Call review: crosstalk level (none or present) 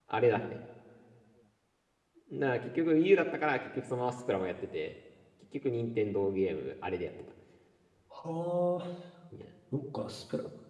none